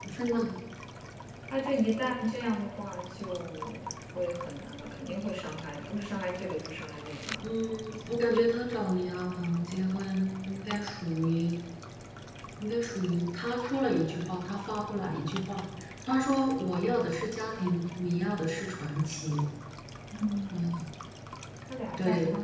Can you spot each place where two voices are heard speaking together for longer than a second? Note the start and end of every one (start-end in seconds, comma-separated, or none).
none